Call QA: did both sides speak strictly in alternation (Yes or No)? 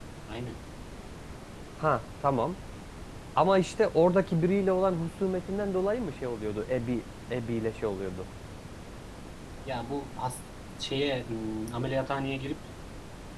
Yes